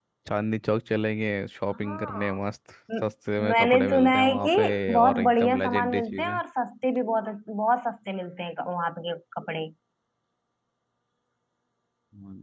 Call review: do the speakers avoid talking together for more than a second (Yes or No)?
No